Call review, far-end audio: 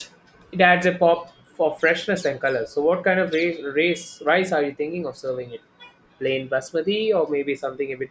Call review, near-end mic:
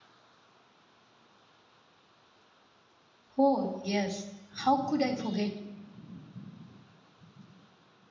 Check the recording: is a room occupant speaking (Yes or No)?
Yes